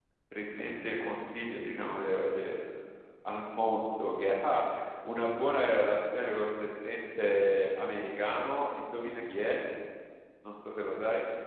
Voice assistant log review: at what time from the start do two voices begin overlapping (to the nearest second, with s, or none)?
none